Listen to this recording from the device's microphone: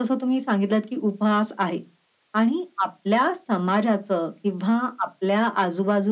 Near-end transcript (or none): none